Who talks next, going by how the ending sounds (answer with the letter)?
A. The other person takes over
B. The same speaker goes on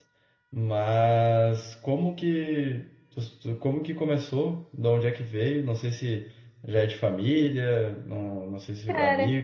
B